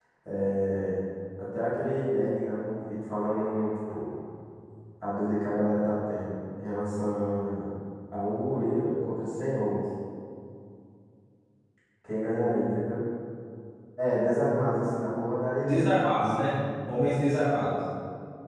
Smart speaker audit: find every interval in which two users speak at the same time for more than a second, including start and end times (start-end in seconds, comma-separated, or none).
none